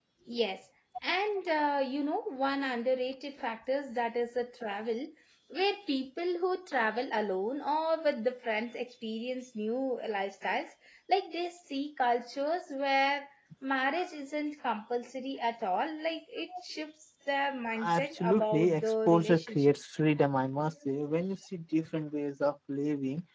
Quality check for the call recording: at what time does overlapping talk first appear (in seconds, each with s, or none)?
17.8 s